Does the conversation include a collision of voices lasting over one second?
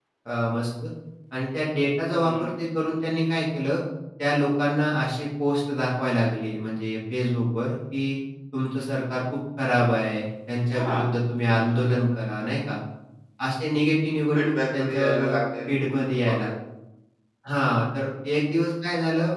Yes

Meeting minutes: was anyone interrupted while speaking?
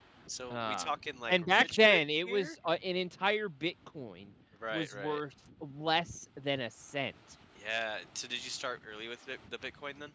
Yes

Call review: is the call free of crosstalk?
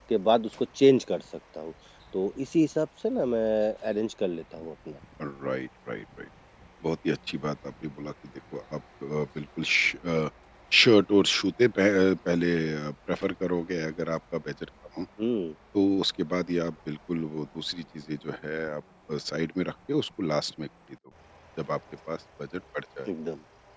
Yes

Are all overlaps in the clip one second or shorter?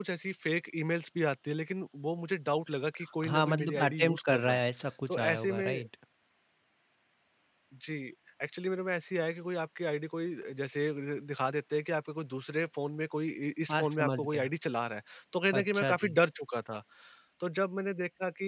No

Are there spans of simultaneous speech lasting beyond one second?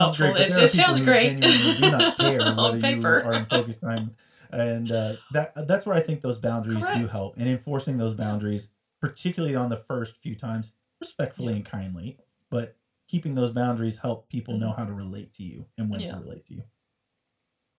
Yes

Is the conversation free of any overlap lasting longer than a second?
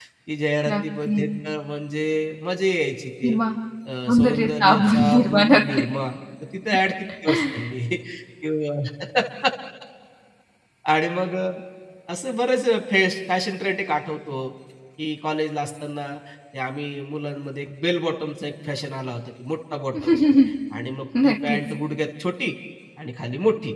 No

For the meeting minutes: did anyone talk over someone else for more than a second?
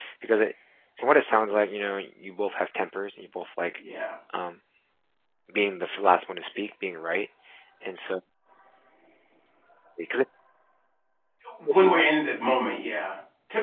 No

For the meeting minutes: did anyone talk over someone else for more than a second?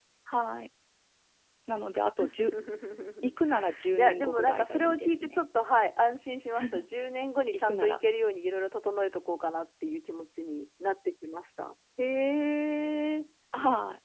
Yes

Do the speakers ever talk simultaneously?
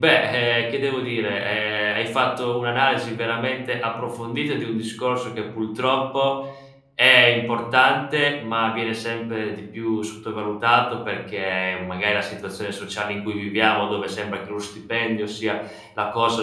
No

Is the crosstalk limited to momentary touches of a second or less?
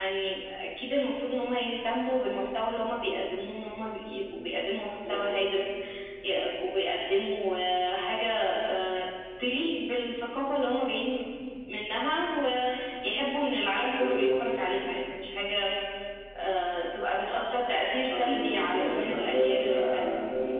No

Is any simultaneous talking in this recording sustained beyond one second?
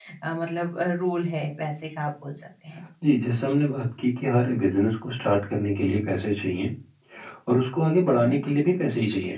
No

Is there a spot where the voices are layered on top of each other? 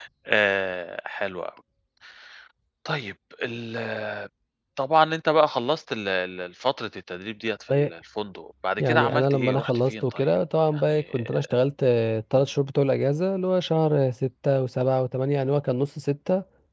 Yes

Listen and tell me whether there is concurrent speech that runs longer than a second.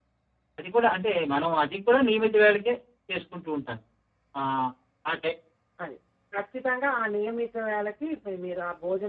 No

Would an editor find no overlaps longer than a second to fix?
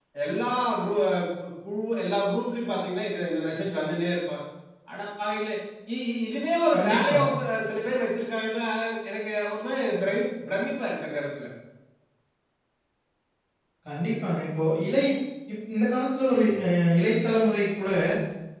Yes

